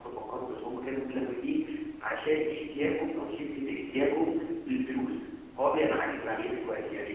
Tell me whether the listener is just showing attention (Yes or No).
Yes